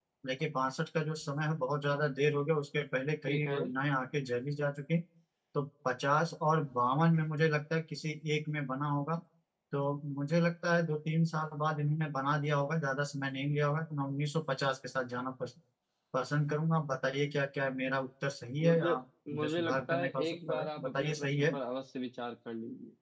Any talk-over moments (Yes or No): Yes